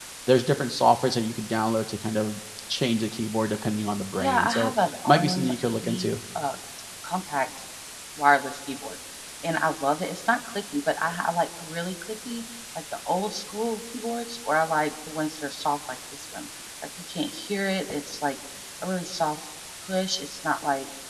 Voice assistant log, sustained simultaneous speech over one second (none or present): present